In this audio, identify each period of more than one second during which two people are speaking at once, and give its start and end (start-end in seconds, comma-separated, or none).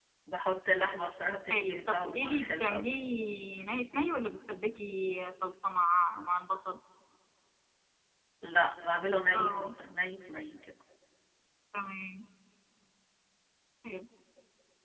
1.5-3.0